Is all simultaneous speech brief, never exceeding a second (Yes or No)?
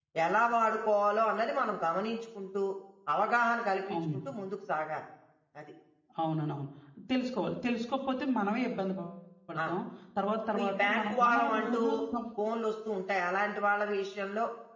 No